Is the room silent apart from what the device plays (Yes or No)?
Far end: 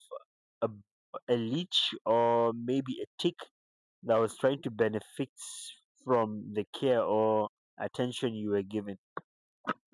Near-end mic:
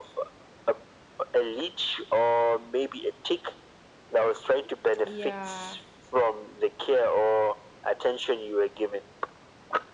No